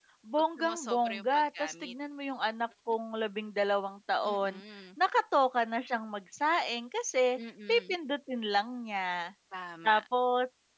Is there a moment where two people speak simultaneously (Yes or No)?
Yes